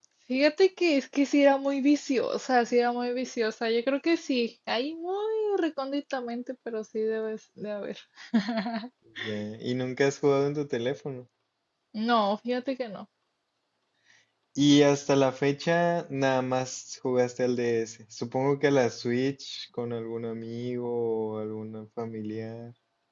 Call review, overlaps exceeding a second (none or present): none